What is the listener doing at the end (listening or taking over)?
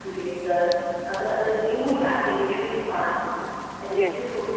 listening